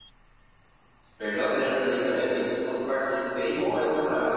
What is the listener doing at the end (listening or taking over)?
taking over